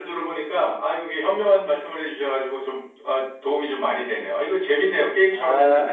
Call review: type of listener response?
taking over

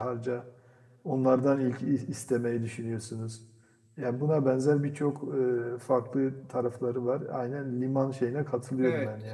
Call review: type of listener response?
taking over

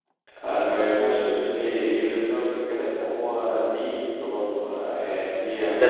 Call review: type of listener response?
taking over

